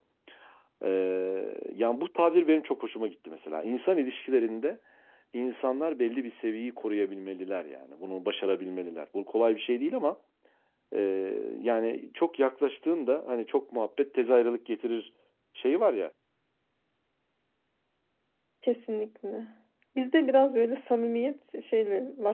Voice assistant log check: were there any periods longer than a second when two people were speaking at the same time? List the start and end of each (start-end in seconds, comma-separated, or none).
none